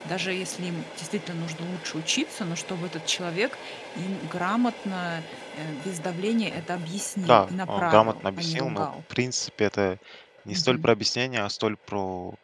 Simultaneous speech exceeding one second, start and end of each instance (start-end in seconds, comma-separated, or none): 7.2-8.8